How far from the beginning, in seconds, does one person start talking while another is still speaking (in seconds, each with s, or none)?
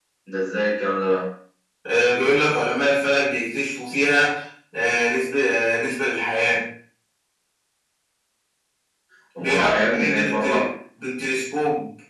9.4 s